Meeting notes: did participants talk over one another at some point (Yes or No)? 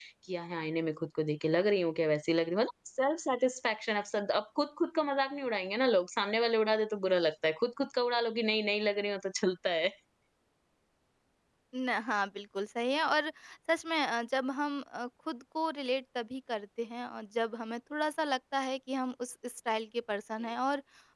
No